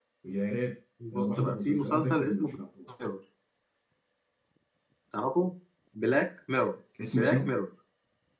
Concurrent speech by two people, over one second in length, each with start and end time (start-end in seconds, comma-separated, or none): 1.1-2.5